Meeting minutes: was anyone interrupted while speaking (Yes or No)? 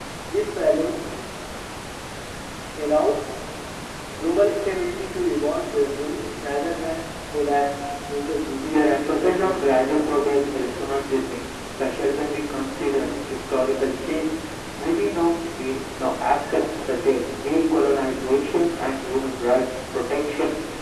Yes